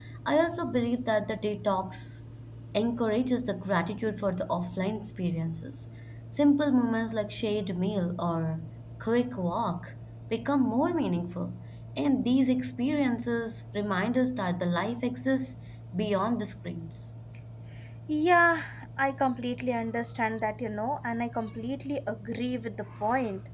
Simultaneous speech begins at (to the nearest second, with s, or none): none